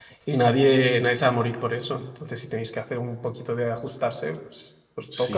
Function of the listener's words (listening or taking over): taking over